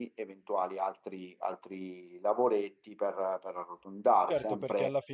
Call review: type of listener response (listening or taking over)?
taking over